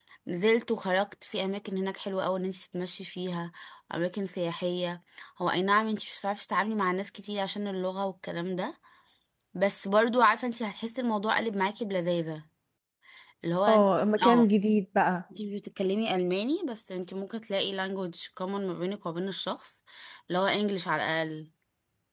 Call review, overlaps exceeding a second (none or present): none